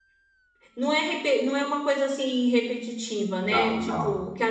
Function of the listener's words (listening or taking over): listening